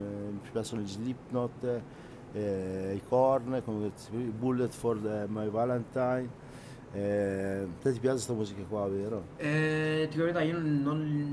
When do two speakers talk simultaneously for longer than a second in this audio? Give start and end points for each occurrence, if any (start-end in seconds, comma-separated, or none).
none